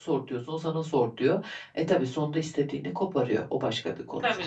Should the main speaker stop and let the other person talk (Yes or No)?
Yes